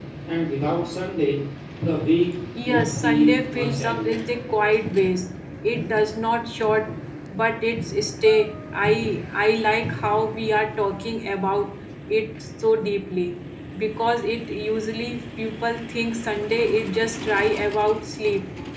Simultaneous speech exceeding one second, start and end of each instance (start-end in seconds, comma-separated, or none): 2.6-4.2